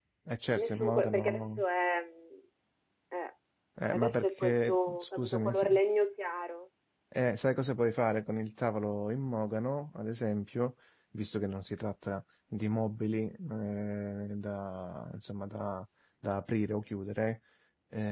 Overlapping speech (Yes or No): Yes